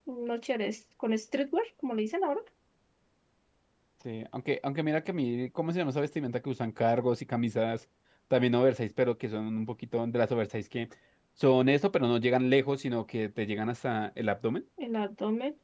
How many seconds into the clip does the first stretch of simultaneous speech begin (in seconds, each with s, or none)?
none